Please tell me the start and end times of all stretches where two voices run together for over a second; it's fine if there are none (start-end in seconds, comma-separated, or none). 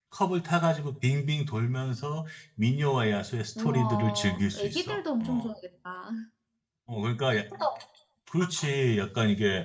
3.6-5.5